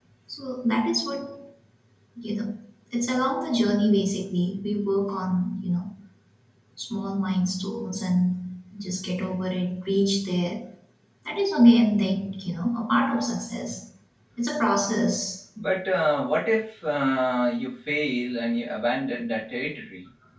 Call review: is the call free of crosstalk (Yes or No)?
Yes